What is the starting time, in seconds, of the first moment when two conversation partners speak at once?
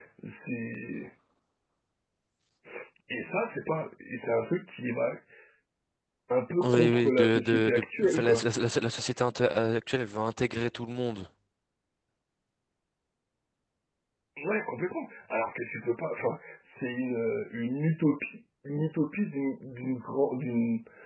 7 s

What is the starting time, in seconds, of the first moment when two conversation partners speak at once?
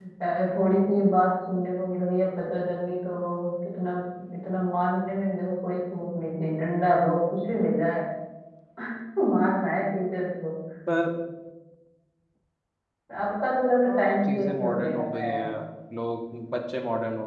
14 s

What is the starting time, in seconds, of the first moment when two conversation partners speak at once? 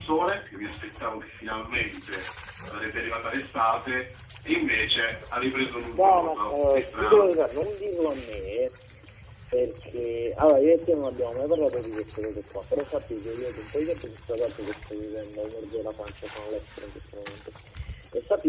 6 s

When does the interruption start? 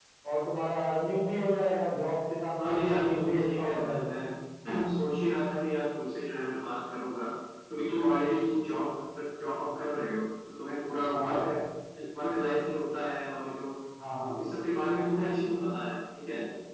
3 s

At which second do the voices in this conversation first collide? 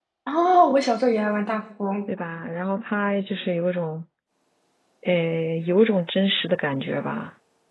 none

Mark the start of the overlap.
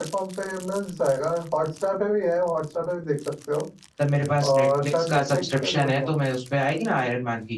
4 s

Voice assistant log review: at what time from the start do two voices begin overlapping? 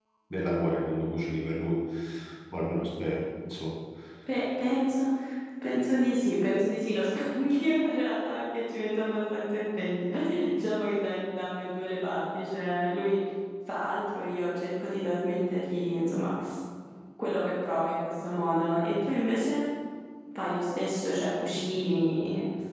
none

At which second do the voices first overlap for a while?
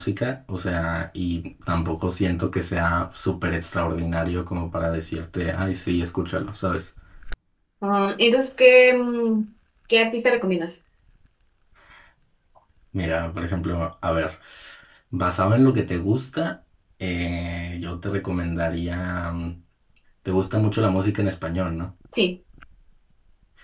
none

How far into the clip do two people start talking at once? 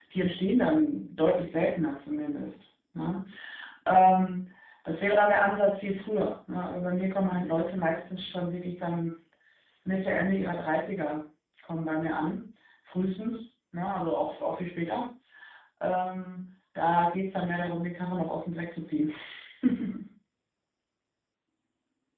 none

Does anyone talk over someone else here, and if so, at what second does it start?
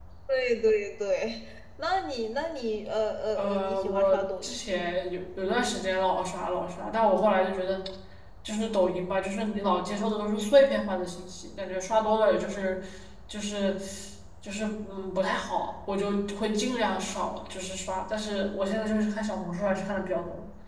3 s

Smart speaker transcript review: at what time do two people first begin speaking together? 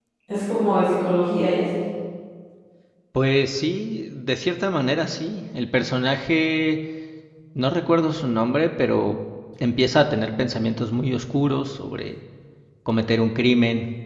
none

